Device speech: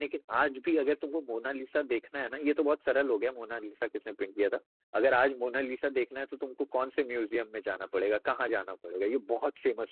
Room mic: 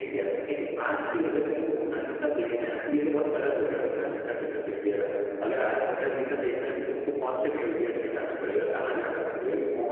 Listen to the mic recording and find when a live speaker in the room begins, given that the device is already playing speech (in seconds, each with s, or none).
none